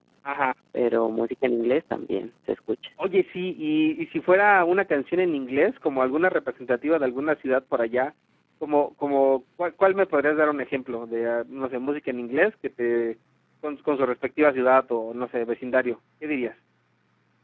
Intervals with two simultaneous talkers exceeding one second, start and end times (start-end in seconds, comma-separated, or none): none